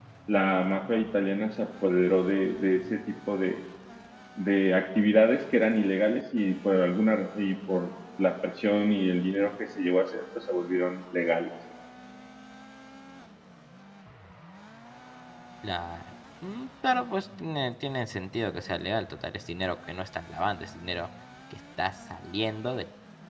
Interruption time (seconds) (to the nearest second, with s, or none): none